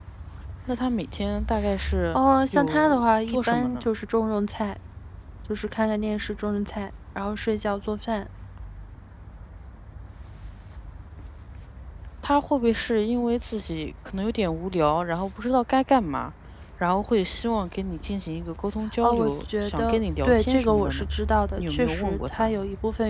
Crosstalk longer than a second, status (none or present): present